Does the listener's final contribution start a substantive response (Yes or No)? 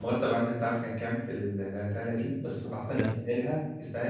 No